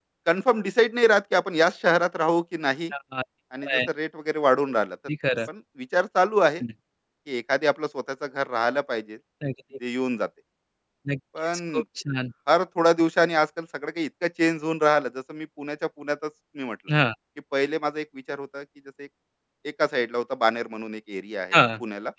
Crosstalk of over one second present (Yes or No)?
No